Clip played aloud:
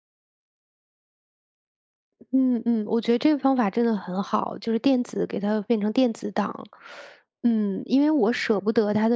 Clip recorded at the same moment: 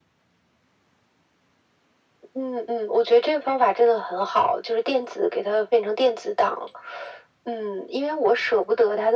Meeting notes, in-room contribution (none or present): none